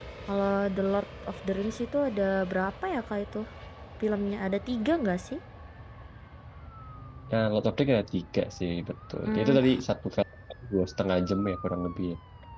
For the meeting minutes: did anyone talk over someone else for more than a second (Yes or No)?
No